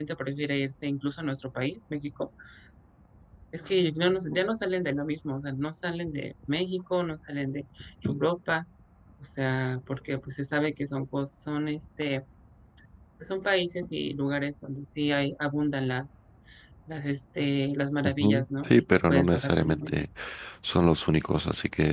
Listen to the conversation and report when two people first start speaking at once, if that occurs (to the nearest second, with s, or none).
18 s